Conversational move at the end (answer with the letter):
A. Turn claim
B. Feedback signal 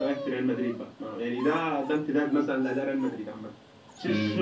A